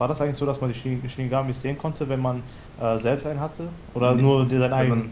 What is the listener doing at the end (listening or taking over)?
taking over